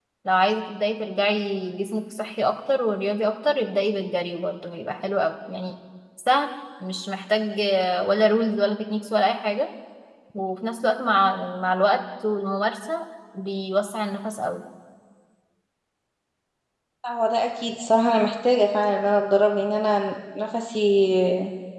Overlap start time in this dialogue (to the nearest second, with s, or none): none